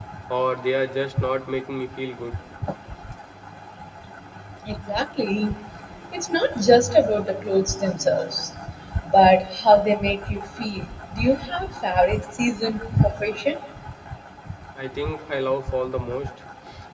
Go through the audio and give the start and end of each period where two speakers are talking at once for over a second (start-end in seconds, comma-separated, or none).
none